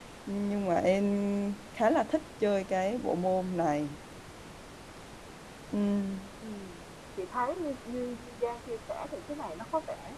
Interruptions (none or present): none